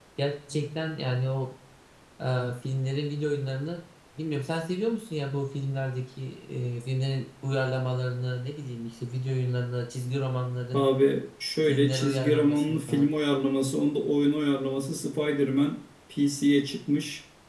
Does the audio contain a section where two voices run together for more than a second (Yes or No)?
Yes